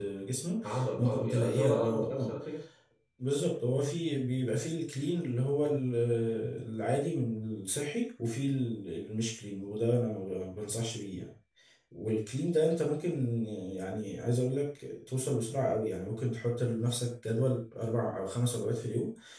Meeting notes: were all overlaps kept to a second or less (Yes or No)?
No